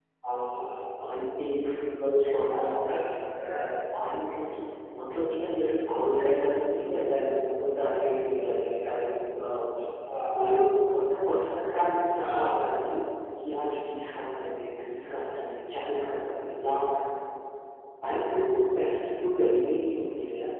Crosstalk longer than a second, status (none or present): none